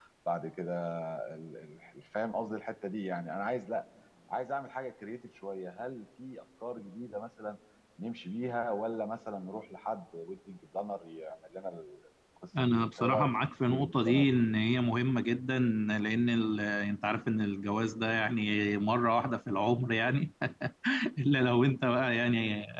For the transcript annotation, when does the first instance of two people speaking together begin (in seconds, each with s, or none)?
12.5 s